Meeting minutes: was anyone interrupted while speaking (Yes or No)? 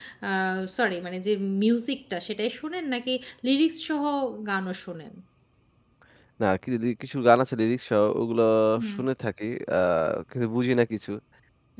No